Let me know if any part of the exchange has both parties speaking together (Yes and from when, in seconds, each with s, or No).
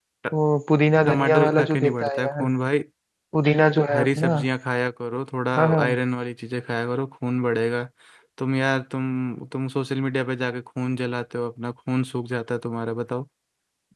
Yes, from 1.1 s